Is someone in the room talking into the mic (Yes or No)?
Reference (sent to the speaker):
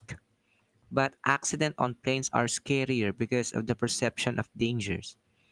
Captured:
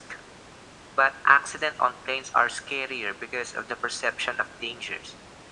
No